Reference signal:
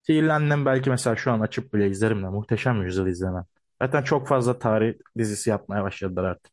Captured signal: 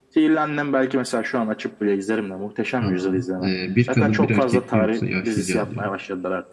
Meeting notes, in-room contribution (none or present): present